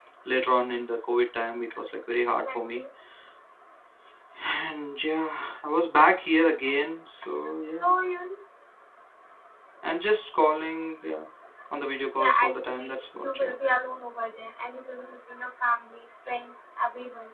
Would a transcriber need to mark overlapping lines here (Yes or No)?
Yes